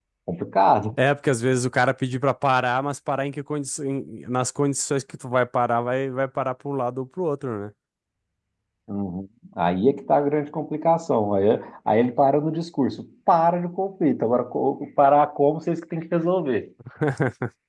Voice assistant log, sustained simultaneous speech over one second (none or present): none